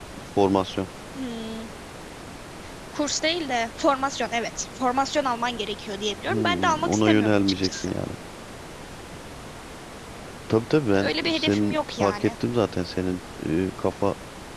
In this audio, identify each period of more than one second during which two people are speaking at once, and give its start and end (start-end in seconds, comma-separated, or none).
6.3-7.9, 11.0-12.3